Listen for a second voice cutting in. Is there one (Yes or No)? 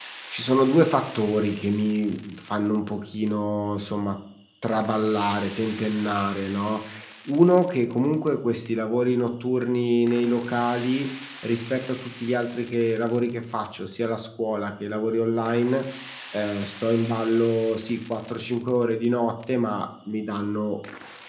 No